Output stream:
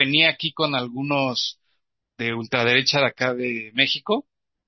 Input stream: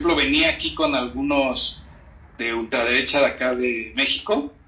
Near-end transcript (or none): none